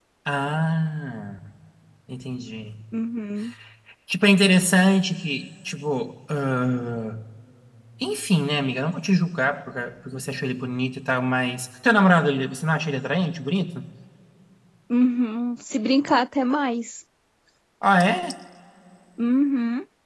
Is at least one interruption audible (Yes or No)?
No